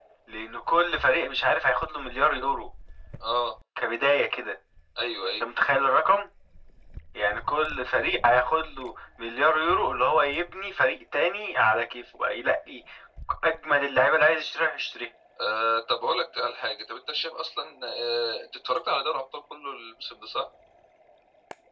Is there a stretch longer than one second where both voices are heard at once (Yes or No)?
No